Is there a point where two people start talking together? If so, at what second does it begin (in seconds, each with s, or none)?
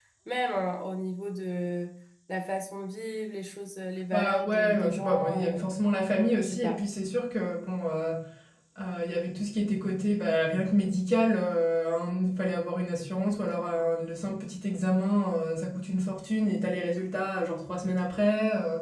4.1 s